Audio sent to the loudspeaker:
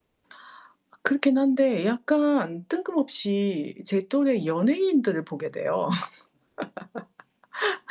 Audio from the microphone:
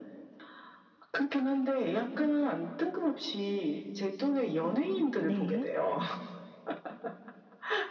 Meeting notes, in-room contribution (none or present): present